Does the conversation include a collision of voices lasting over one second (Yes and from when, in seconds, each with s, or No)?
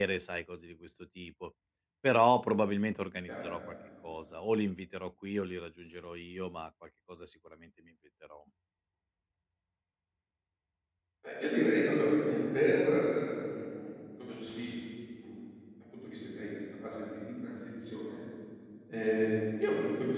No